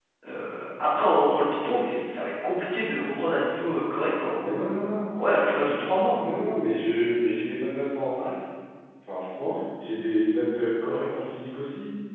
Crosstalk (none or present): none